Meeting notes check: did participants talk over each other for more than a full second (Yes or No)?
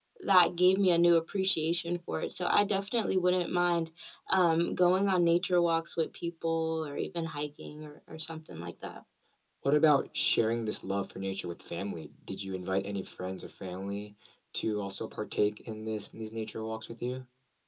No